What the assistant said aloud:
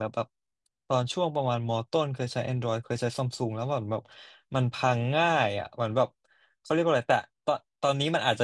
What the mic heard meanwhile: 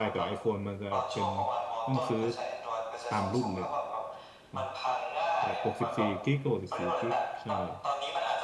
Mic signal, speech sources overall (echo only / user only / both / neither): both